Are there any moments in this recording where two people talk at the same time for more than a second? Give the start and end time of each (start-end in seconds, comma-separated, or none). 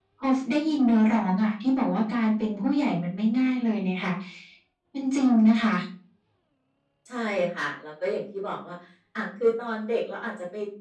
none